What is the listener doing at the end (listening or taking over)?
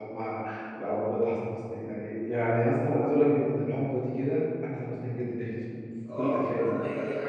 taking over